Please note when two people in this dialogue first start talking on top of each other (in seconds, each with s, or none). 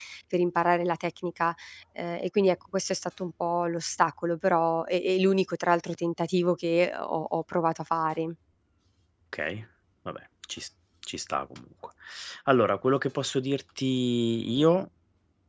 none